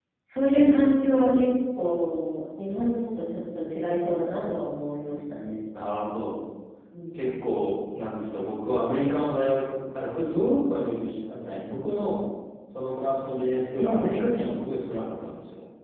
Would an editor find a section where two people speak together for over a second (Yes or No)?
No